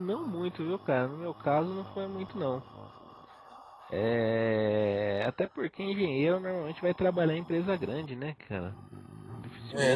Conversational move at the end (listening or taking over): listening